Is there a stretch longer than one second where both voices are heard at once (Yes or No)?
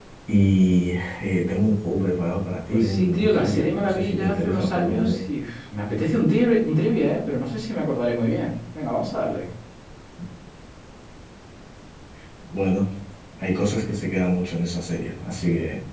Yes